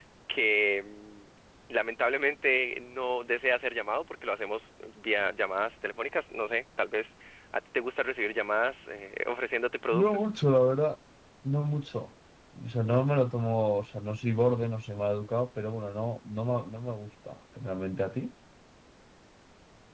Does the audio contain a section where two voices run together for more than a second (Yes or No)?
No